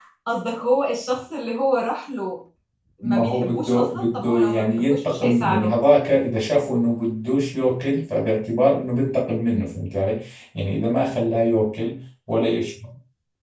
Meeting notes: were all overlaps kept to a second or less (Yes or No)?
No